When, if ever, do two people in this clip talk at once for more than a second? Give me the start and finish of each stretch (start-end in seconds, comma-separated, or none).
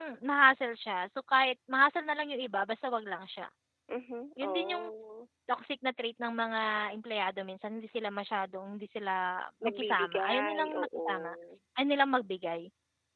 9.6-11.1